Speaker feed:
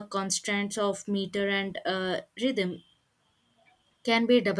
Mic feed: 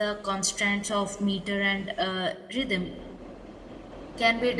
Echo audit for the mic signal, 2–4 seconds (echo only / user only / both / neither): echo only